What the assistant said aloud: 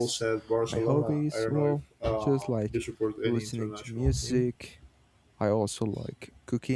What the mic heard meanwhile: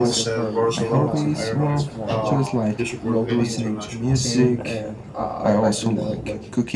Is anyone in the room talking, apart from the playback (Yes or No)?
Yes